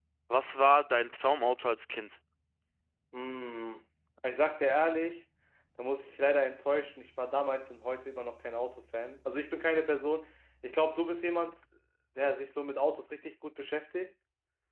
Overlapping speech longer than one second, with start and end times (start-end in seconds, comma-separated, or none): none